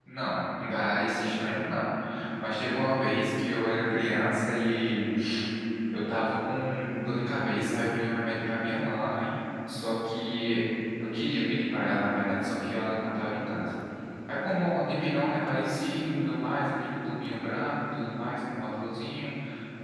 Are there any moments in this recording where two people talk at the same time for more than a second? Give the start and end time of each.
none

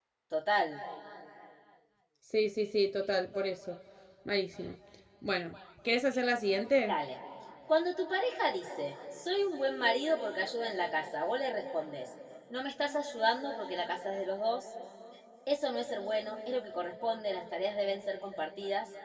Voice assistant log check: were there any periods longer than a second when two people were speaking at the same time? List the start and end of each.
none

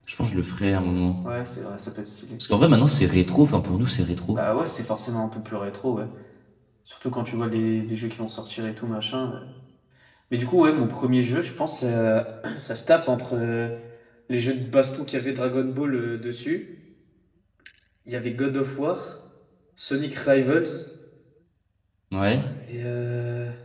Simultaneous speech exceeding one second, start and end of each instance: none

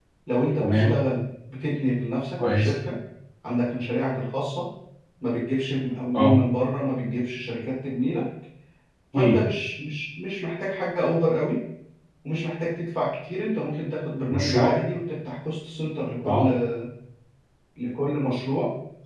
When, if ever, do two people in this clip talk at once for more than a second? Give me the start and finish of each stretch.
none

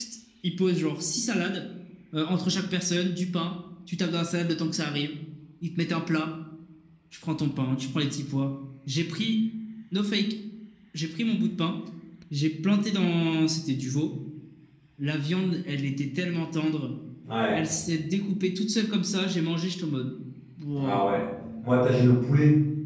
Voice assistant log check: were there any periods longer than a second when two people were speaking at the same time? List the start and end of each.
none

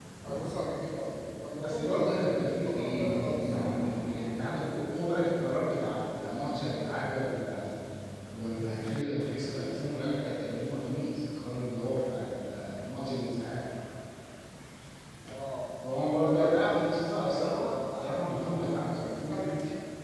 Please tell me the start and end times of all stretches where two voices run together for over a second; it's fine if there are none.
1.6-3.7, 17.1-19.4

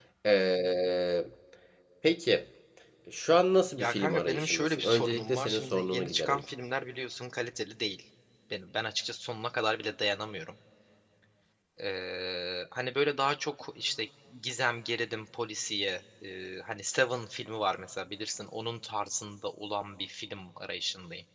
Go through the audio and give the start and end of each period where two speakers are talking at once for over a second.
3.8-6.4

